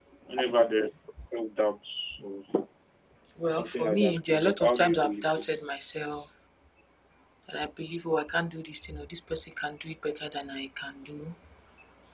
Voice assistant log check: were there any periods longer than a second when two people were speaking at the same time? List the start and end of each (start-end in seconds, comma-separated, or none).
3.5-5.6